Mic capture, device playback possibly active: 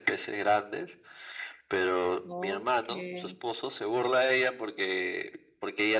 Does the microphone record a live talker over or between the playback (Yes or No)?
Yes